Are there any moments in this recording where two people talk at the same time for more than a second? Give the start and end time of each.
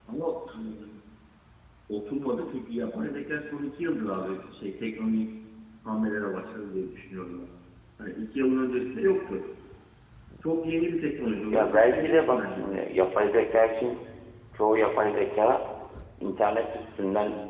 11.5-12.8

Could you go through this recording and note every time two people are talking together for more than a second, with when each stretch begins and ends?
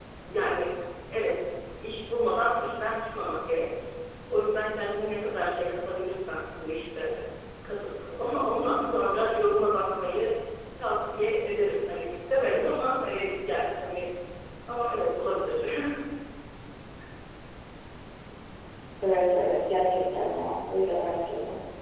none

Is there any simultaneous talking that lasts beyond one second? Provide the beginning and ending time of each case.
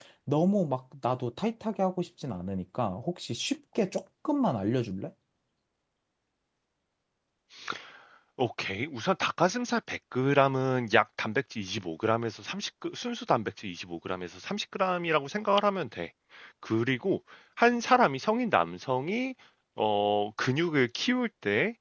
none

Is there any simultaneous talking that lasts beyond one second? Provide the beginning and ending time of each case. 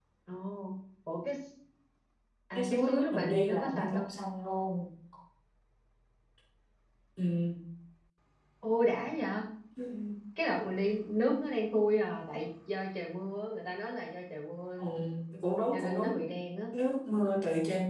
2.5-4.1

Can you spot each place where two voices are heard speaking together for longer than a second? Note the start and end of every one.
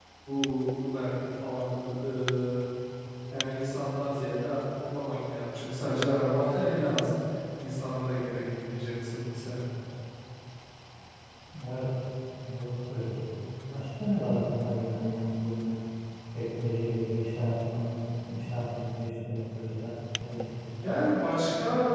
none

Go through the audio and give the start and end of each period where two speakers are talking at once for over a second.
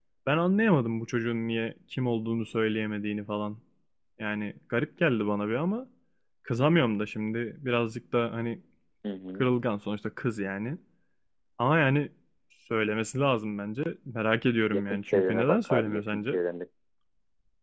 14.6-16.4

